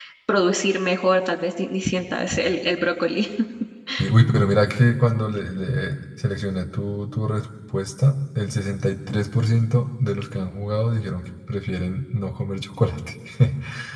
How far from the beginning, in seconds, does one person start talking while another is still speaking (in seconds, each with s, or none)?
none